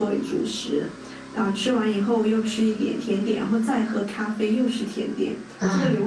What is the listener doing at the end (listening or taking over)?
listening